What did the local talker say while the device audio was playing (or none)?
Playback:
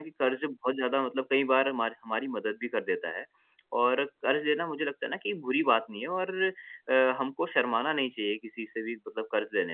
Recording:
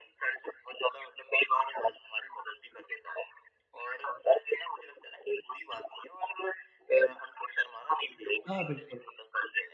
हाँ, बिल्कुल,